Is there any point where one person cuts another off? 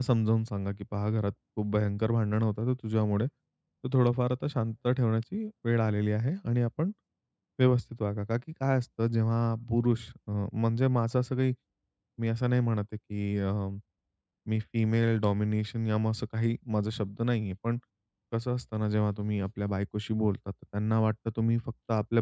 No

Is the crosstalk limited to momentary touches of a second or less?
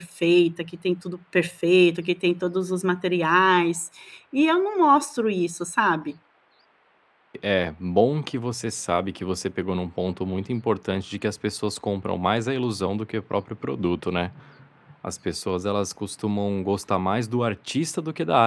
Yes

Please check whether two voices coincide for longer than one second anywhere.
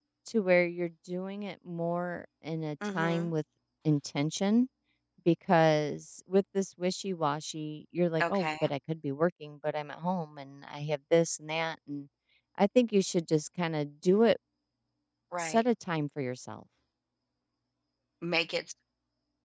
No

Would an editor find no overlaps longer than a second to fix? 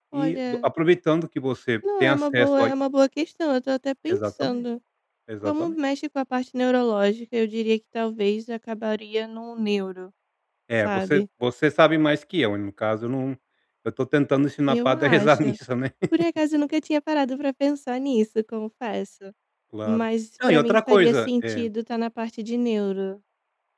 No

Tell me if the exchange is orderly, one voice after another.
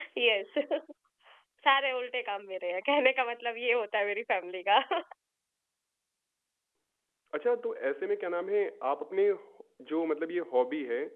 Yes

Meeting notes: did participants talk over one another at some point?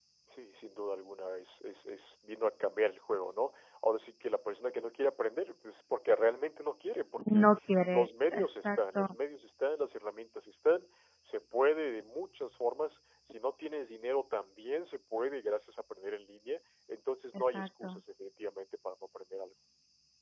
Yes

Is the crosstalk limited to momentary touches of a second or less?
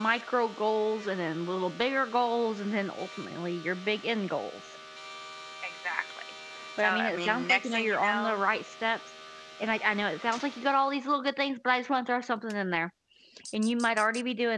No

